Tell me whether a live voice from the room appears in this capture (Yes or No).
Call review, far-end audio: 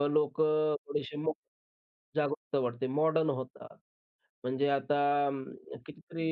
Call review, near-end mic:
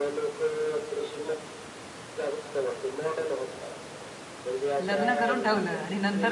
Yes